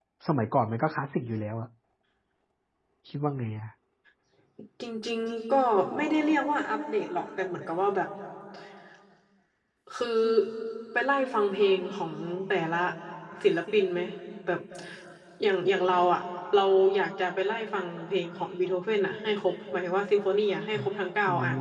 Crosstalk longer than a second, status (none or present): none